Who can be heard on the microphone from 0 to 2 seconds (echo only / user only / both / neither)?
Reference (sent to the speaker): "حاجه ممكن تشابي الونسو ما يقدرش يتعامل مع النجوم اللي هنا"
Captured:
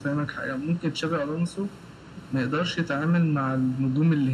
echo only